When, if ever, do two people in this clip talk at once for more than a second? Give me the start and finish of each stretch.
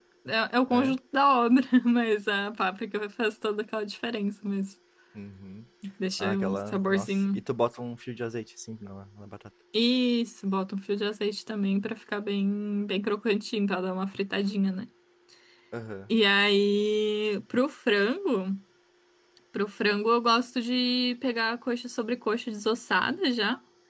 6.2-7.4

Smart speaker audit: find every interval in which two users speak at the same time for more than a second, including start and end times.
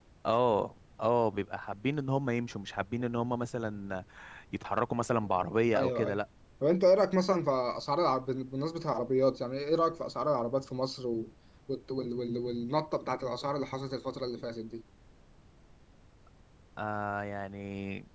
none

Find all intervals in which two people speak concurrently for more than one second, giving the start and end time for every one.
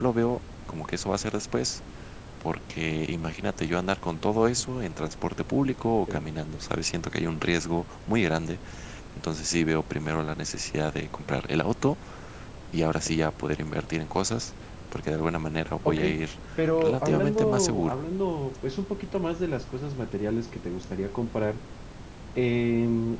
16.8-18.0

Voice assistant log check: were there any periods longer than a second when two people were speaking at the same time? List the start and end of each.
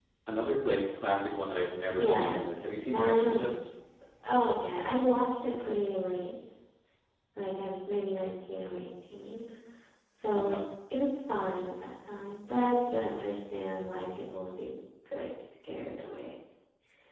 2.0-3.6

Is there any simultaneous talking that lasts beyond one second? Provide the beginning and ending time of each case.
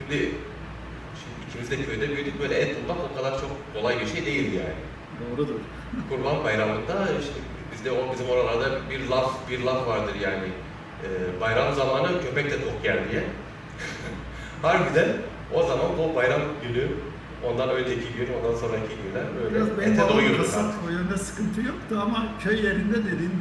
19.3-20.6

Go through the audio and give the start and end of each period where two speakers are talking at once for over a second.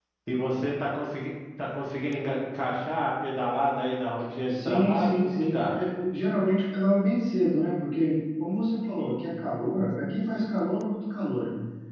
4.5-5.8

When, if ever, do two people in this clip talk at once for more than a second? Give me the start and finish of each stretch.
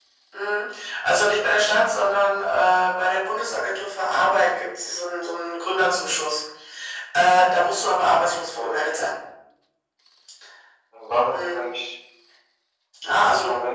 none

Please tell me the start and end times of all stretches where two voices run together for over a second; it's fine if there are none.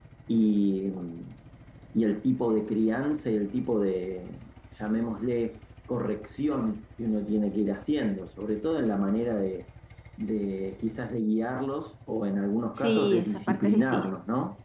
12.8-14.2

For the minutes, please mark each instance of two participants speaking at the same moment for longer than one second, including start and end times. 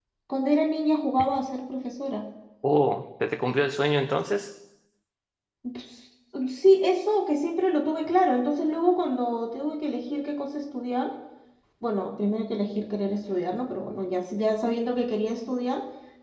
none

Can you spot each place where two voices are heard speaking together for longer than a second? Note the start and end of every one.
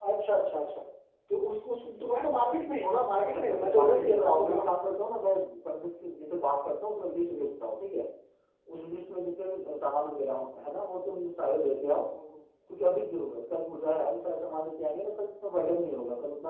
3.2-4.7

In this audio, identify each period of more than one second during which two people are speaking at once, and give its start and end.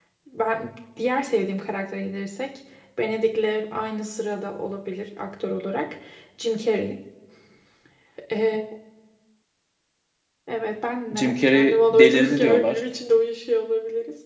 11.1-12.8

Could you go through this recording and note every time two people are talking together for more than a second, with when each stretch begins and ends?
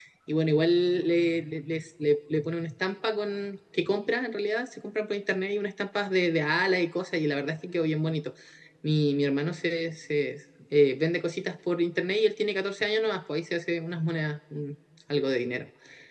none

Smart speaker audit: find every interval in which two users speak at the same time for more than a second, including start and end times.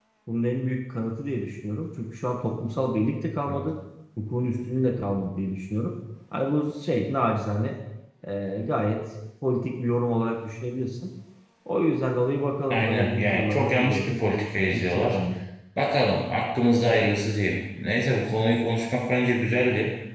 12.7-15.2

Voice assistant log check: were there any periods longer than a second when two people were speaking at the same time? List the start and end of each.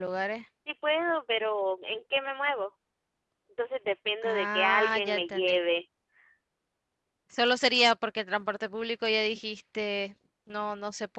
4.2-5.6

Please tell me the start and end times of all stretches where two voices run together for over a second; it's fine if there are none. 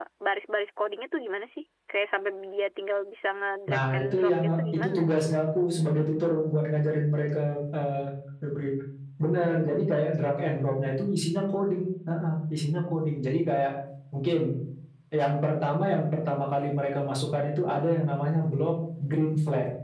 3.7-5.0

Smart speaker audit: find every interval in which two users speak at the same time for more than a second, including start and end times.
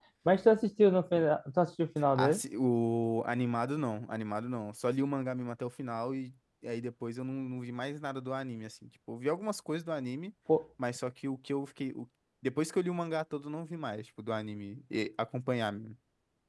none

